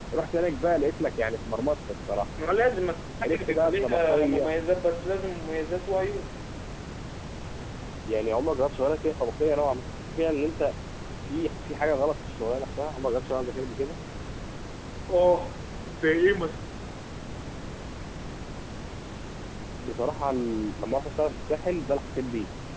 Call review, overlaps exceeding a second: present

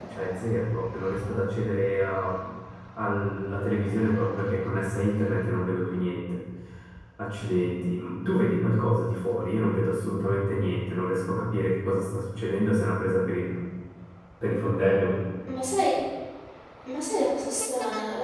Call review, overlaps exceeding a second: none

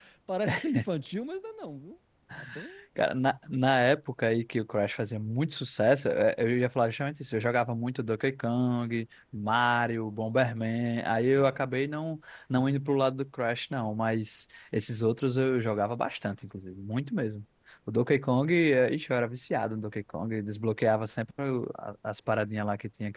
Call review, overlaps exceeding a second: none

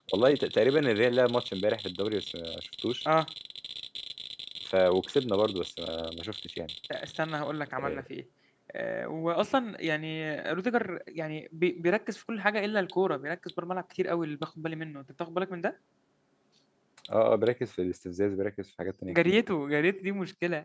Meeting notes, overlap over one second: none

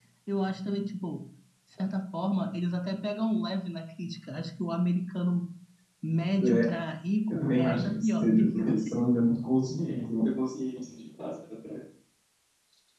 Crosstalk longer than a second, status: present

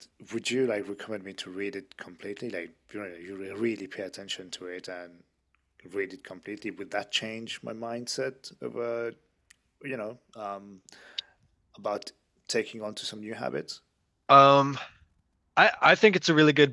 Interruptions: none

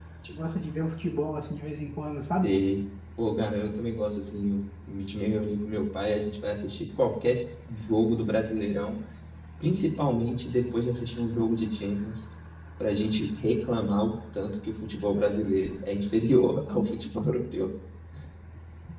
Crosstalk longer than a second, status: none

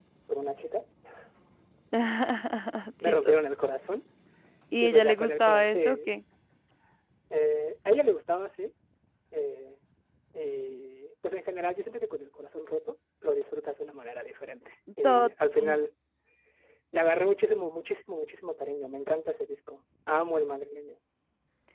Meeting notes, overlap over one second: present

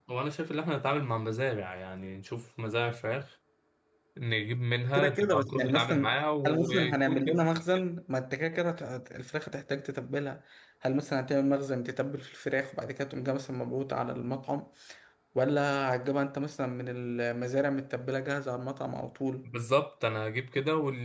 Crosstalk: present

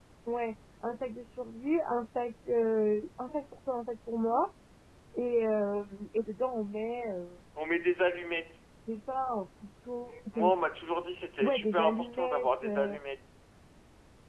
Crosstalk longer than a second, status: present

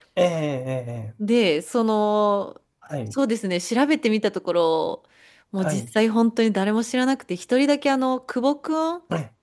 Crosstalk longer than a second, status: none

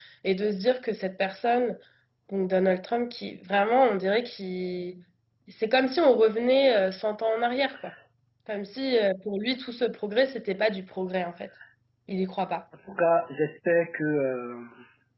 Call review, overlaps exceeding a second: none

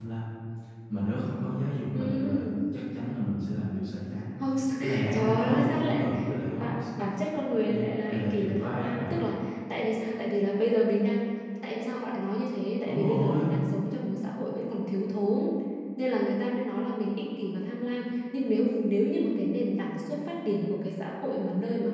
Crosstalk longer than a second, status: present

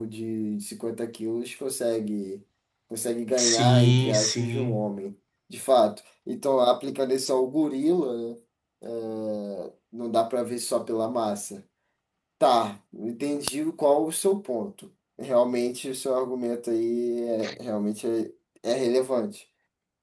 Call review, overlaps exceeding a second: present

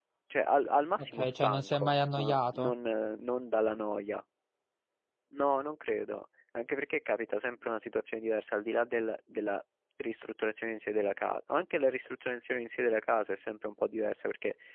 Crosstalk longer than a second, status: present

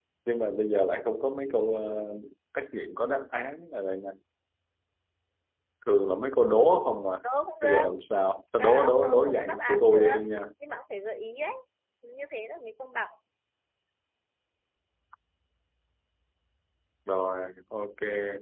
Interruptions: present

